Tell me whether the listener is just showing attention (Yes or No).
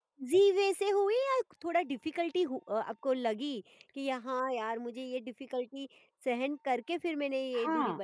No